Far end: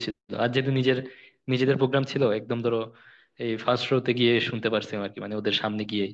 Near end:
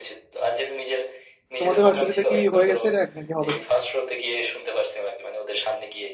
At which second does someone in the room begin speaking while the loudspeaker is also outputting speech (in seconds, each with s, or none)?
1.6 s